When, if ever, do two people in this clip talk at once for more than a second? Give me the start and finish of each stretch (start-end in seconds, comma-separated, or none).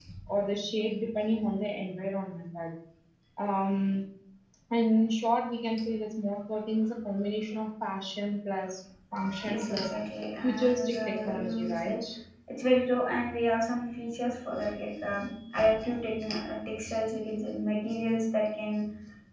10.4-11.9